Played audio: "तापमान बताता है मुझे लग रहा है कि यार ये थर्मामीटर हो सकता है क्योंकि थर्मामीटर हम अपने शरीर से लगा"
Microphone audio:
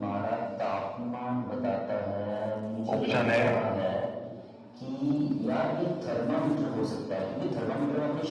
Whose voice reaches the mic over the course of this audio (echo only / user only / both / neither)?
both